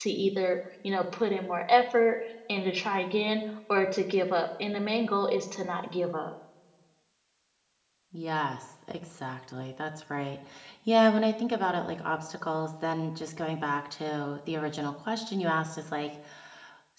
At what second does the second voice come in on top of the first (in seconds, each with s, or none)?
none